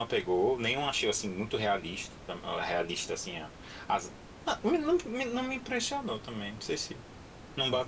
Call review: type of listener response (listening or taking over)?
taking over